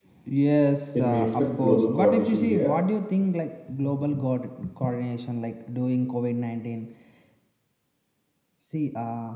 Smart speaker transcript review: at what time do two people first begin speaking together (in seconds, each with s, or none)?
0.9 s